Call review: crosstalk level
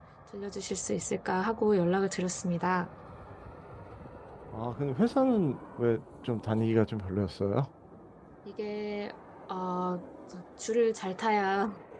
none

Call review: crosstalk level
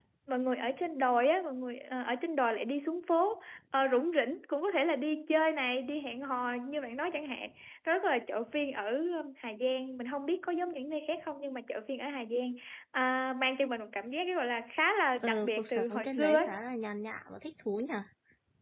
present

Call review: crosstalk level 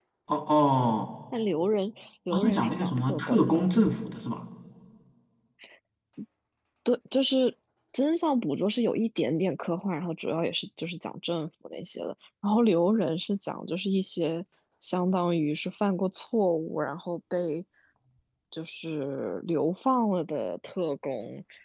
present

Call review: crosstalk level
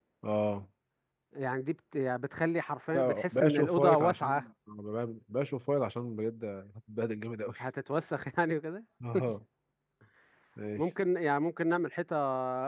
present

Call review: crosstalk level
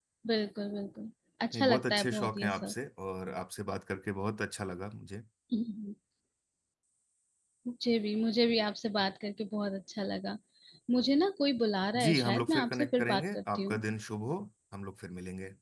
present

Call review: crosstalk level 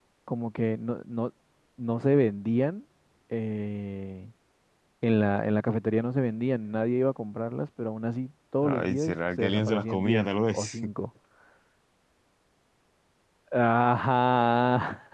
present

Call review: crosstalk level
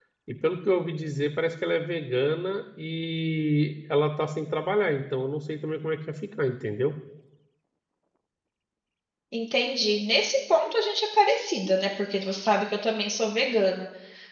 none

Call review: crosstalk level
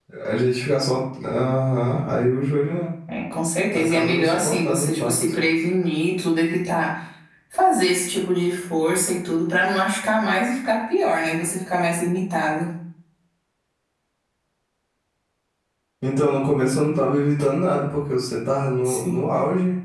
present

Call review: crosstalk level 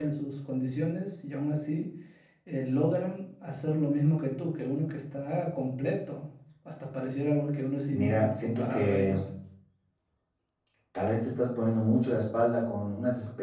present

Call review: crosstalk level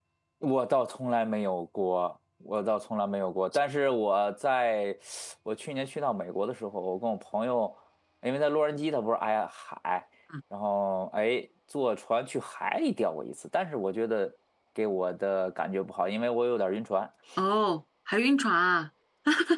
none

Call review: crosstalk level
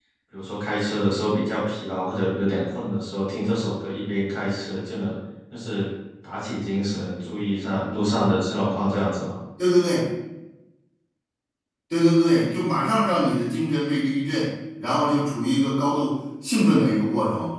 none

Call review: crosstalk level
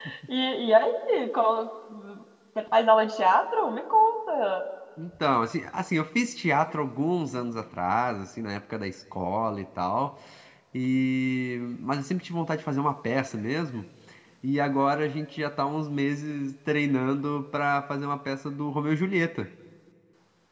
none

